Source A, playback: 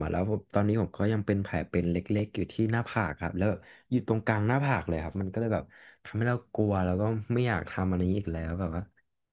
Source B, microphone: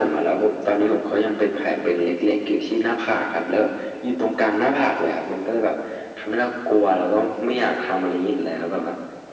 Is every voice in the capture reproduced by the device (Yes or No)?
Yes